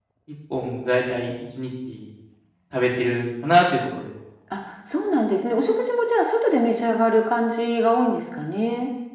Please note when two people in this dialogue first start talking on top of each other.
none

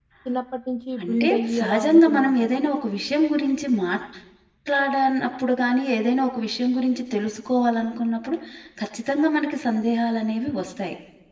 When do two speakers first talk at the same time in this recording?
1 s

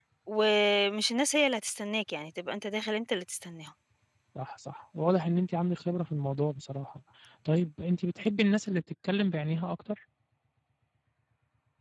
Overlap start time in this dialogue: none

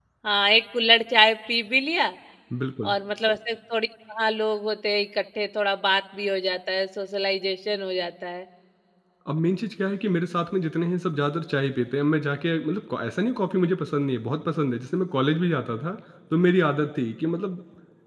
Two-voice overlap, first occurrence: none

